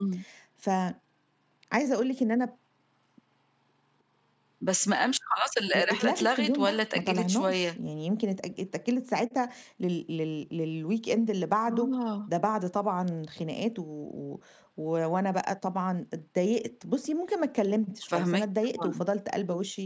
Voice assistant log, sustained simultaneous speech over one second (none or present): present